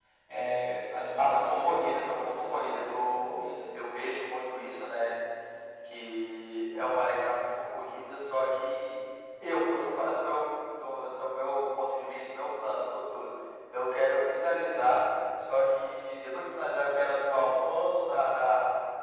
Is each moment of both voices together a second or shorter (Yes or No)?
No